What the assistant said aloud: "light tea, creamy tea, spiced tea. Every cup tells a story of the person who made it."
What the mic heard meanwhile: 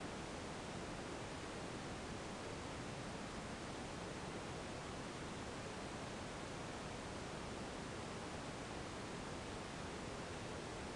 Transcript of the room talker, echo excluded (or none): none